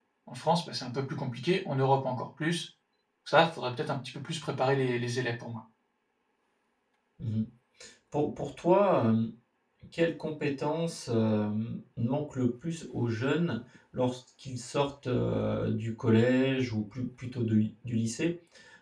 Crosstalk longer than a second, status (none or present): none